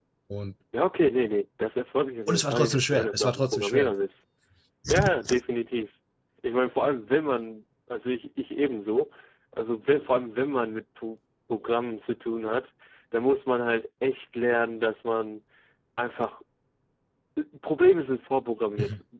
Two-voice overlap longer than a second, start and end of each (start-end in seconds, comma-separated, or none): 2.3-3.9